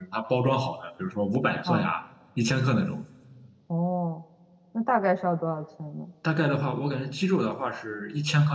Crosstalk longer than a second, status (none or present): none